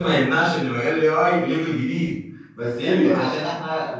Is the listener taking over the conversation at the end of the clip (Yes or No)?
No